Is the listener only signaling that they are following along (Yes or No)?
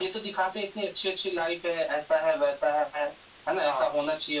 Yes